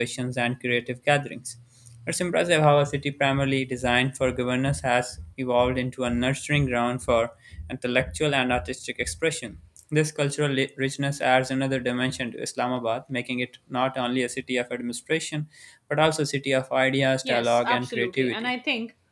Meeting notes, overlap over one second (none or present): present